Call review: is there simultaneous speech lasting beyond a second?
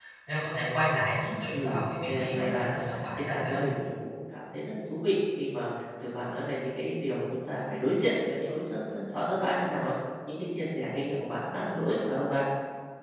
Yes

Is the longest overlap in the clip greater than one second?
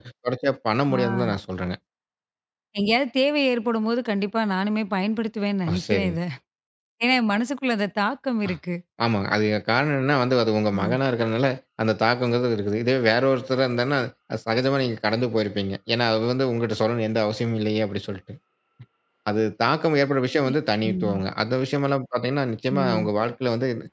No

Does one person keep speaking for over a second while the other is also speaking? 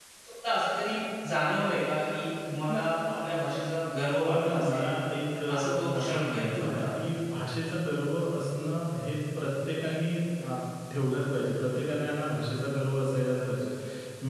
Yes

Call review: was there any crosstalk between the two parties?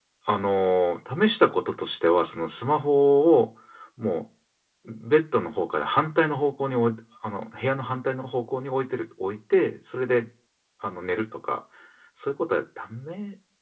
No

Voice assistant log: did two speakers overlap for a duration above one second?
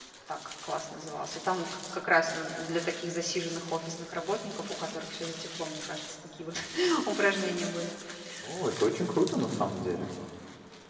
No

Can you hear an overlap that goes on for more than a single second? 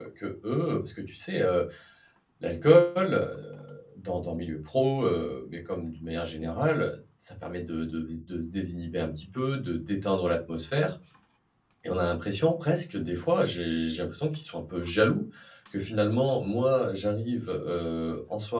No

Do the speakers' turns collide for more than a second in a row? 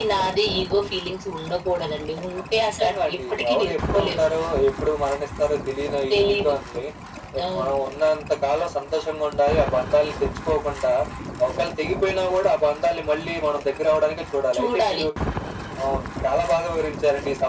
Yes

